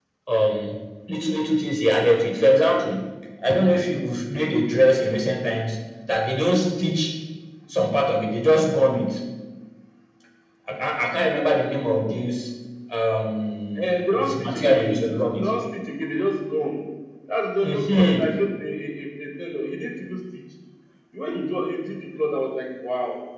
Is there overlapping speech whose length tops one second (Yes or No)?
Yes